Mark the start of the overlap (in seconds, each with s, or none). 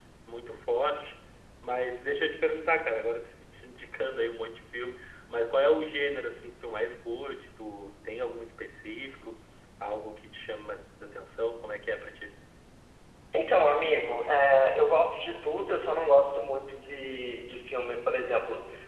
none